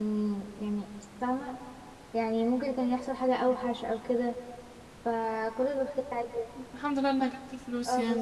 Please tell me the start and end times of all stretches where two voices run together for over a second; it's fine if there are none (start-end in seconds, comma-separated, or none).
none